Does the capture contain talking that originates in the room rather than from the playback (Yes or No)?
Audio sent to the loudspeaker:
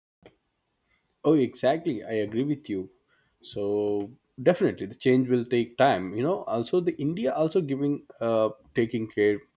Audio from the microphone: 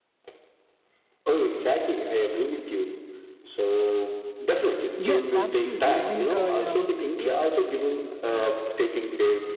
Yes